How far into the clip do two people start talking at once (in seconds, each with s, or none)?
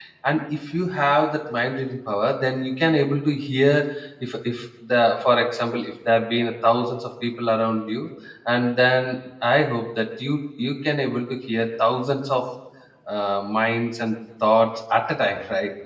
none